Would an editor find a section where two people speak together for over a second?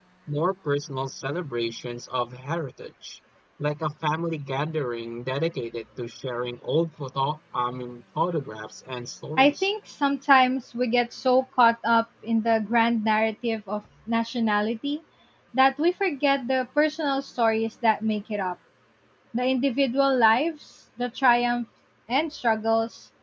No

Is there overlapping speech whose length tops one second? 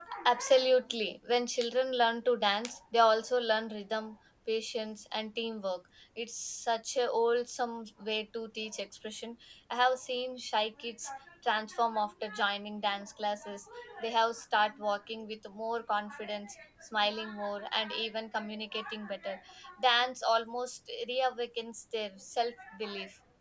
No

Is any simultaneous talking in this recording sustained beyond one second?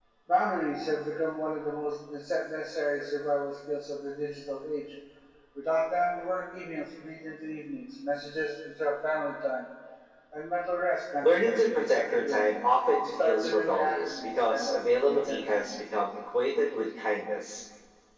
Yes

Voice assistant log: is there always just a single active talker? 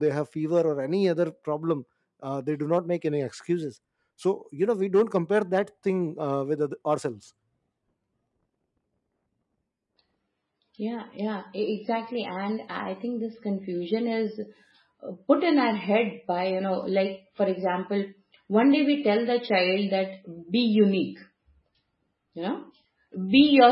Yes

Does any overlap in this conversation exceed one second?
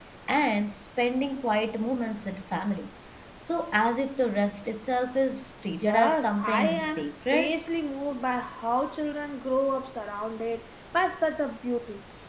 Yes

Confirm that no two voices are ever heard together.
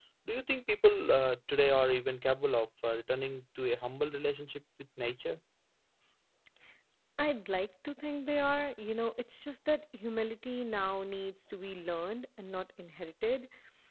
Yes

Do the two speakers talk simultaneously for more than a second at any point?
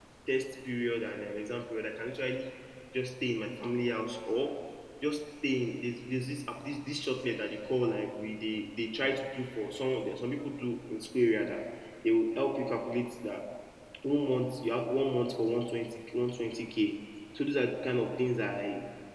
No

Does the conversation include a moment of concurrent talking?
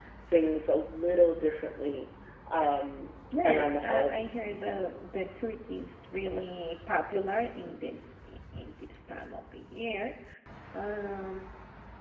Yes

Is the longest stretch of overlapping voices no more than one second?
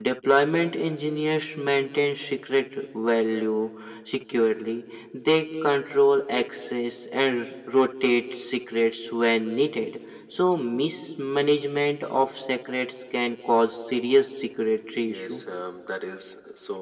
Yes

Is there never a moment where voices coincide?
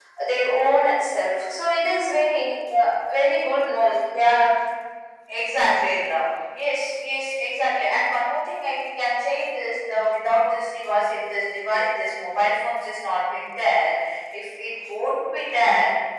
Yes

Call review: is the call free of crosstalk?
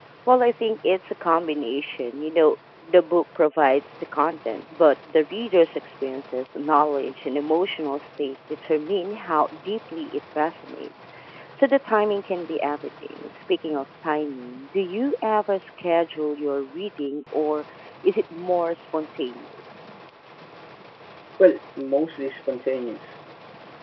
Yes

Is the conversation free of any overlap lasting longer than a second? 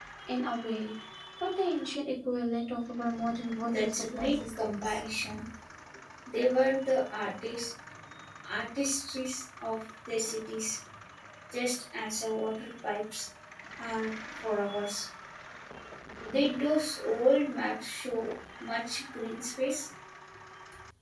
No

